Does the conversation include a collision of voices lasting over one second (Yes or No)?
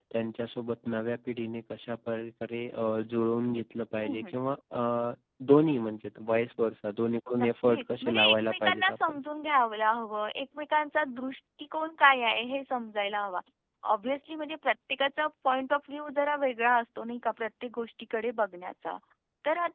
Yes